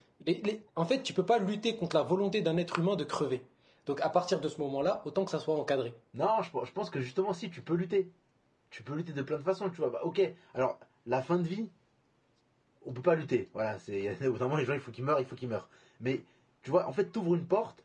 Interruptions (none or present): none